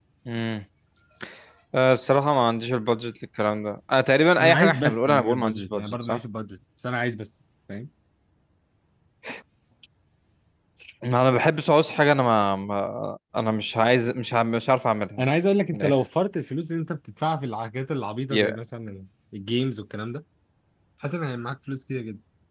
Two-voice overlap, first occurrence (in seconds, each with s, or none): 4.4 s